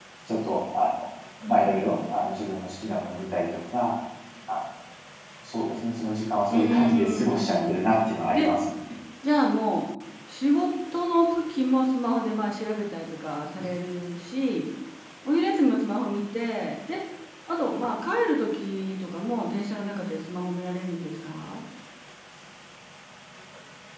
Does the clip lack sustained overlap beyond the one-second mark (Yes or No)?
No